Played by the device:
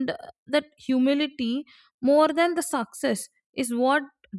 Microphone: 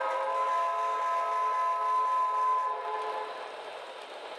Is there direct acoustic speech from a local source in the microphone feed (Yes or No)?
No